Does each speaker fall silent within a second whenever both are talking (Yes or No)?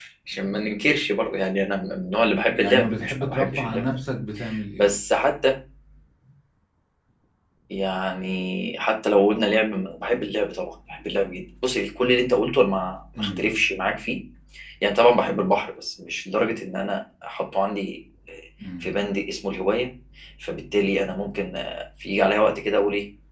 No